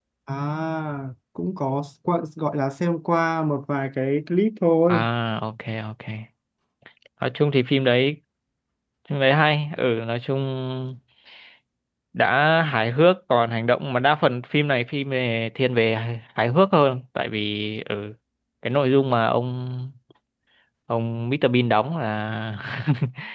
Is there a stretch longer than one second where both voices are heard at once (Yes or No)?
No